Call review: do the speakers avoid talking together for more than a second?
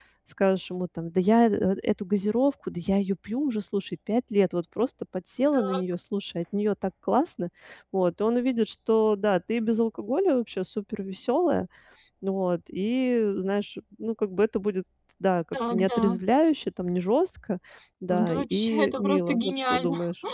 No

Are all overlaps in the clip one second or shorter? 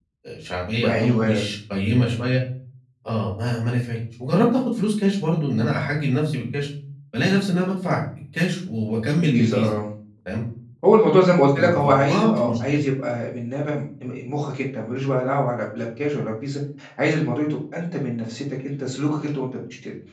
No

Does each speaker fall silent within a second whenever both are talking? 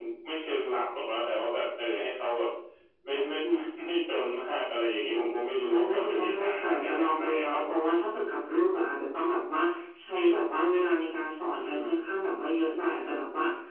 No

